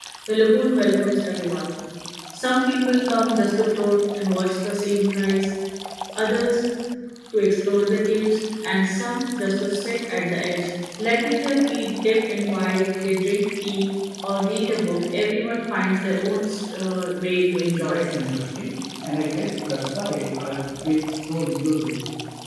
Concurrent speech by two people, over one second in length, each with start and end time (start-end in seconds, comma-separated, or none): none